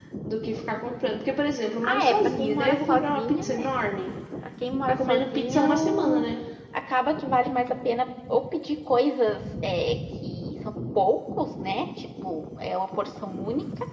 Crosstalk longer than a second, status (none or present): present